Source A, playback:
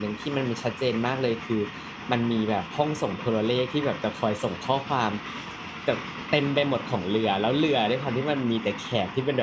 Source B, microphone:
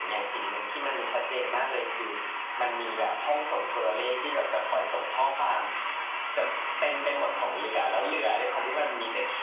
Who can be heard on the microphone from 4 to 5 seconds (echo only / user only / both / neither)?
echo only